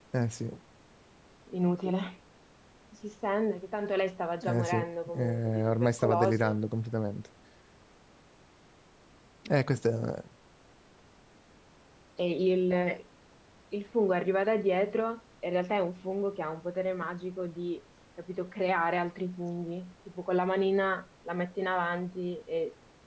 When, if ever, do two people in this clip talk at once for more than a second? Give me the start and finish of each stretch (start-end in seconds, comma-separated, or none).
5.1-6.5